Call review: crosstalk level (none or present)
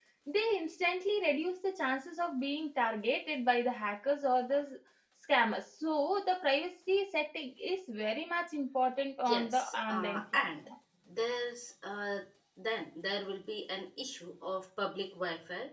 present